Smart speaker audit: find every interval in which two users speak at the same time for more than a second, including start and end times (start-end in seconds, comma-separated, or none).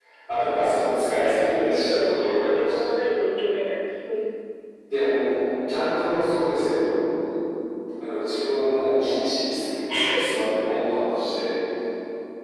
1.6-3.0